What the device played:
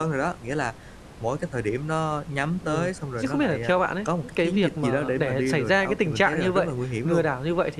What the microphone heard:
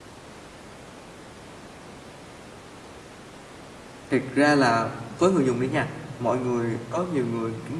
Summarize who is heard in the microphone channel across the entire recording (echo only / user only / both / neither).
user only